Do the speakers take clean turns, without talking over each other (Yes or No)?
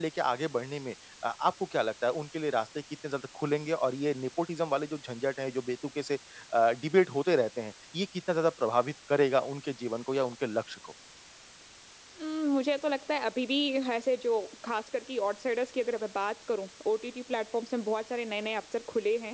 Yes